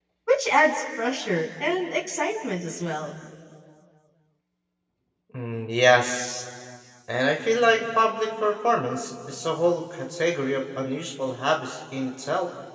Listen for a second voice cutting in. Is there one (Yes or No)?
No